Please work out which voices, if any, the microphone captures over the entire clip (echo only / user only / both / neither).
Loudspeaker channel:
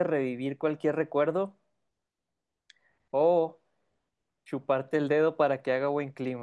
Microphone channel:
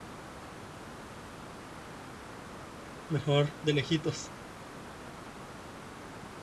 user only